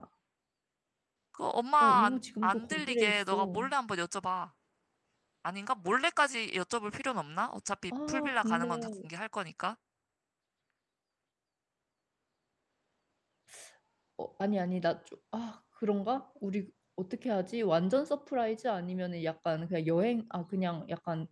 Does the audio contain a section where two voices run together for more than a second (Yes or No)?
Yes